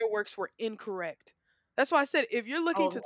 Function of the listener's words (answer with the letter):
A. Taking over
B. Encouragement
A